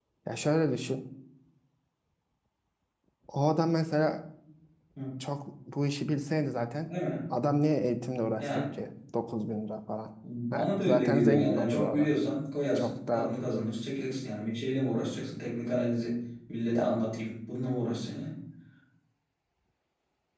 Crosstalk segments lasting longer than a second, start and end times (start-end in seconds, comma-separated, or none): 10.5-12.1